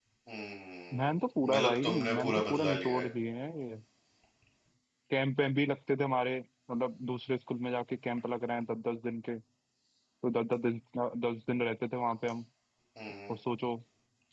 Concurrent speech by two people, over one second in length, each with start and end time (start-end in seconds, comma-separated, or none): 1.5-3.1